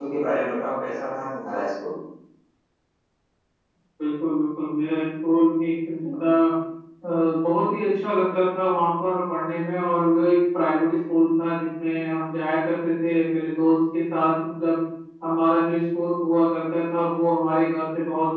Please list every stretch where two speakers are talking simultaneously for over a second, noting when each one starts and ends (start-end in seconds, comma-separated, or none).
none